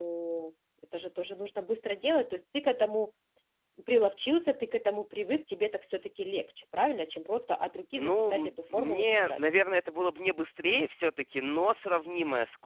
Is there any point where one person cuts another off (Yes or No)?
Yes